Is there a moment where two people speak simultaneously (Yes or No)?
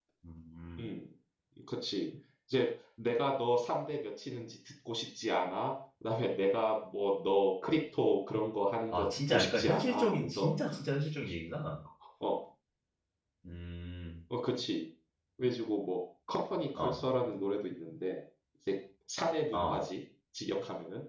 Yes